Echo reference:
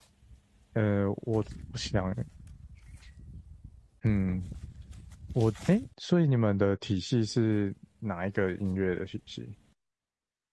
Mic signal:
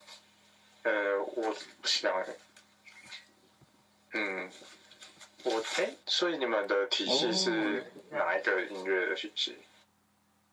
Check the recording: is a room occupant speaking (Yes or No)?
Yes